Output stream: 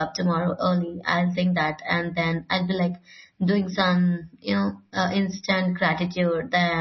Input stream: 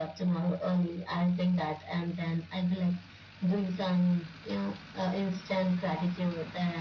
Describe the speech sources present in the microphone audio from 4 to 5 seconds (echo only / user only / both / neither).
echo only